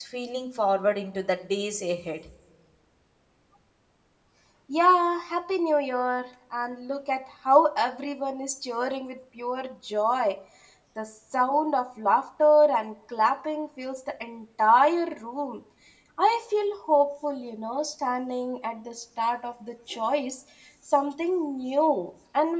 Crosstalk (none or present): none